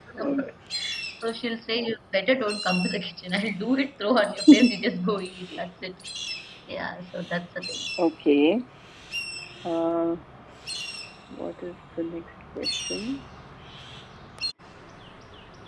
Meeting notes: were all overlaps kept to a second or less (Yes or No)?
Yes